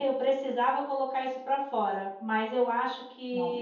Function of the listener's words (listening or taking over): listening